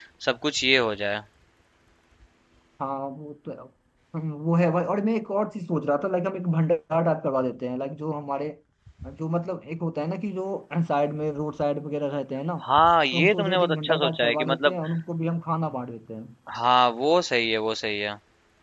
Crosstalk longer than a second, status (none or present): present